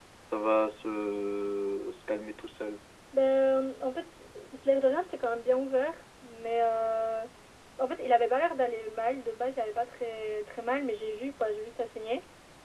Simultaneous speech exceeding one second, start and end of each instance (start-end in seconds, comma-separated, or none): none